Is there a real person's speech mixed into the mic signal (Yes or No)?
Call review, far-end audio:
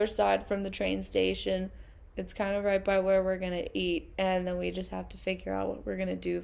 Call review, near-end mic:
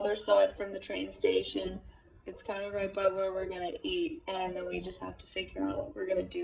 No